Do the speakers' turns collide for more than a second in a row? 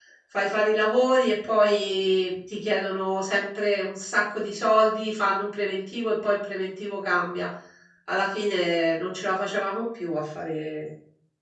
No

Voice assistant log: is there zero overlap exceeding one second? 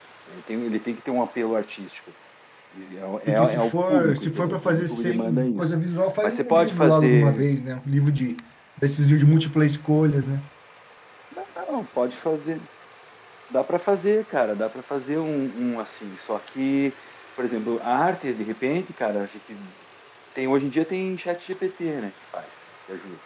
No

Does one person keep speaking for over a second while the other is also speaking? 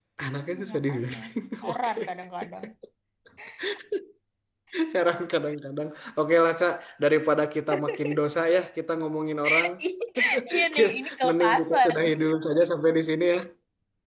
Yes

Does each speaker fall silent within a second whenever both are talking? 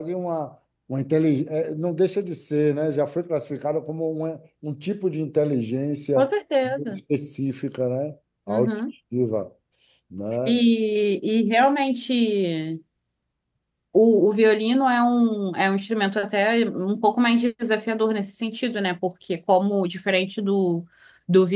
Yes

